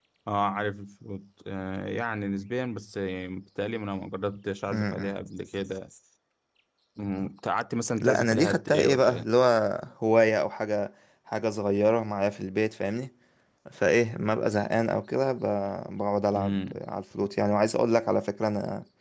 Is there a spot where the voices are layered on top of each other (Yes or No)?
Yes